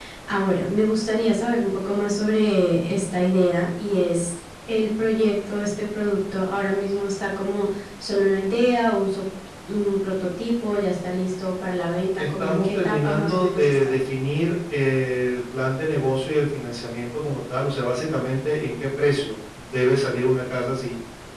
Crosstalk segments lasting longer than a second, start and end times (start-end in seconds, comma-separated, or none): 12.2-13.9